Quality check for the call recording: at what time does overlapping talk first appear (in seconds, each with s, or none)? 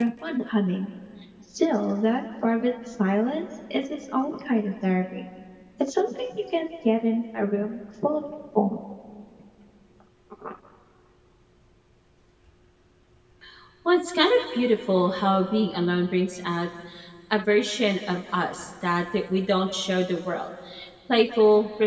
none